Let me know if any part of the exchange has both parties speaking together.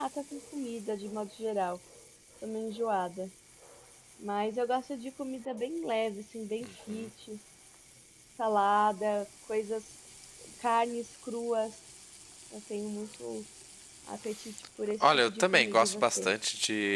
Yes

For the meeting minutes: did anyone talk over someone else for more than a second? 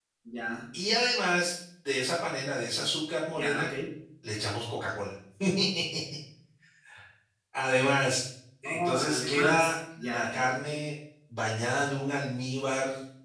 Yes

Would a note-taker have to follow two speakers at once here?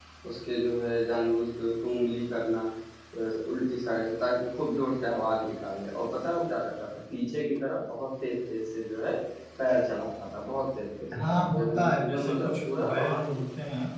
Yes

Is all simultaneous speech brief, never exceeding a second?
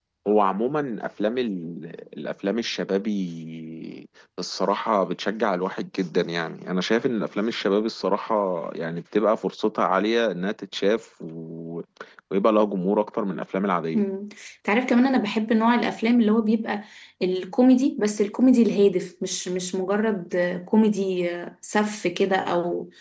Yes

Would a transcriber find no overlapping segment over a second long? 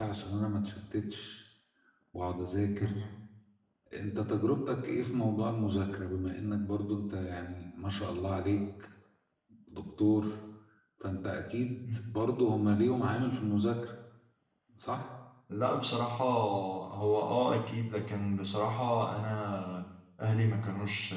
Yes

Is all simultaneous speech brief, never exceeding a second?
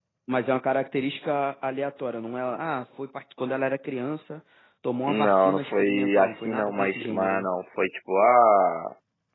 No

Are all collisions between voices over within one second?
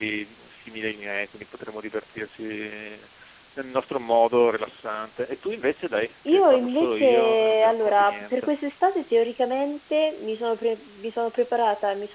No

